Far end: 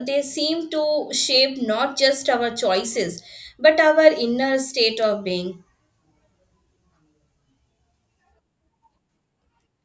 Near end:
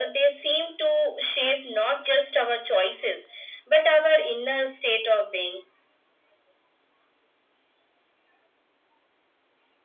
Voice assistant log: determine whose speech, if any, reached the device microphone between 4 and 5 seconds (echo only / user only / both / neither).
echo only